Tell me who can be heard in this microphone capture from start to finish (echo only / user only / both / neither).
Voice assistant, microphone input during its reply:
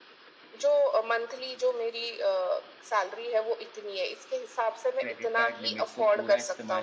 both